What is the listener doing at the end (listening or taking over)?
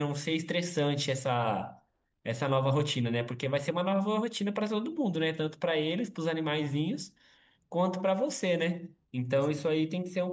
listening